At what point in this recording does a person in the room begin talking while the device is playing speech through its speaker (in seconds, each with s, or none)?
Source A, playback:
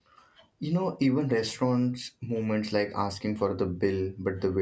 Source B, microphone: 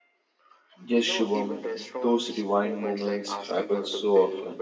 0.9 s